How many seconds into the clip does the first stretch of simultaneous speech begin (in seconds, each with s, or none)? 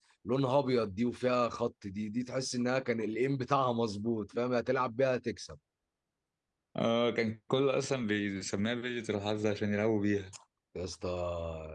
none